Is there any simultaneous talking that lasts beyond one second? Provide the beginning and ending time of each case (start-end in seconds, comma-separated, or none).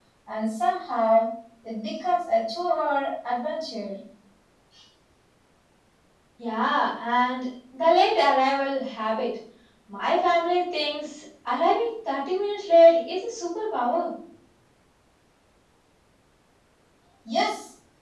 none